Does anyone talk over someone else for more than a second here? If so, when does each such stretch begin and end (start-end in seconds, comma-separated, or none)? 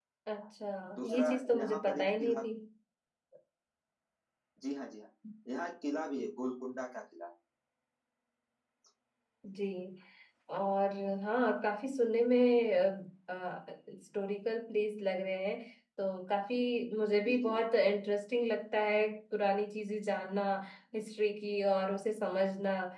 1.0-2.4